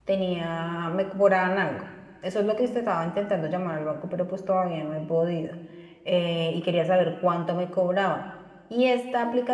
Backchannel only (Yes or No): Yes